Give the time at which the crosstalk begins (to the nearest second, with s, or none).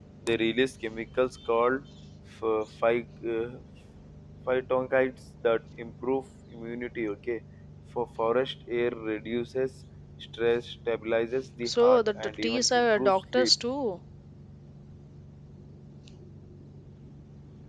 12 s